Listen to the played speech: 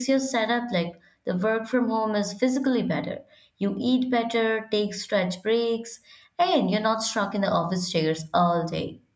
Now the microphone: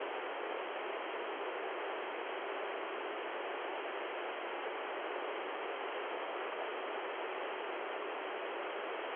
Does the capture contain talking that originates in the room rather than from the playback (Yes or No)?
No